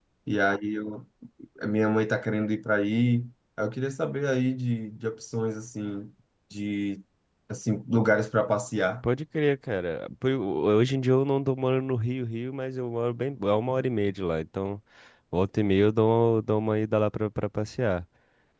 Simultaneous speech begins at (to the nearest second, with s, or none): none